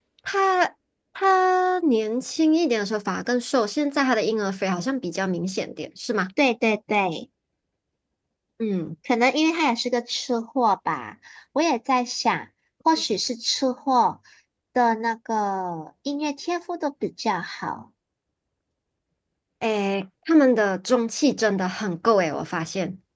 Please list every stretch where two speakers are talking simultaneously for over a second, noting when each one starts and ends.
none

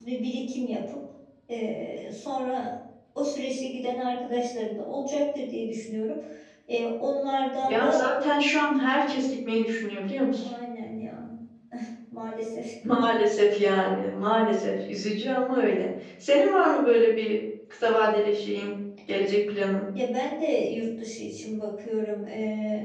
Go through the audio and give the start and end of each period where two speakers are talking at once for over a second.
none

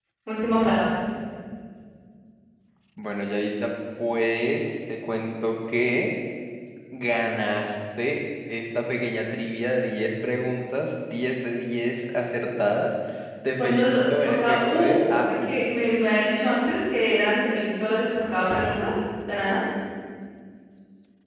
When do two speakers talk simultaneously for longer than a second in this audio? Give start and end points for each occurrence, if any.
13.6-15.6

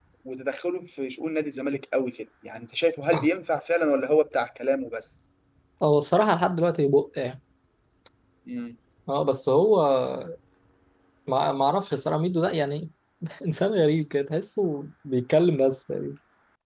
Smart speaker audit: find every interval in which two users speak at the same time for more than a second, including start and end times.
none

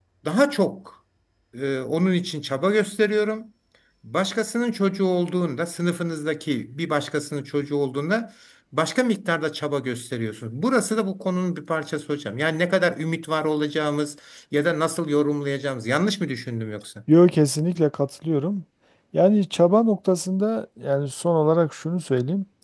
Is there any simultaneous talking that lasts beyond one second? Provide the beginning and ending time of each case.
none

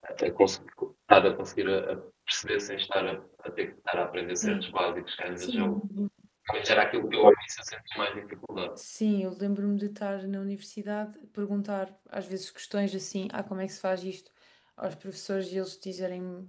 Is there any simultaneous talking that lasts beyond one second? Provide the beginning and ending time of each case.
none

